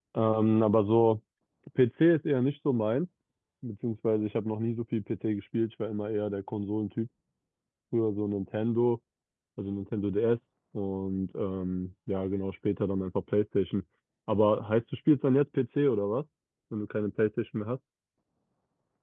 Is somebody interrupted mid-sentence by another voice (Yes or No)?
No